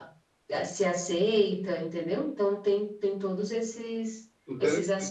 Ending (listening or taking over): taking over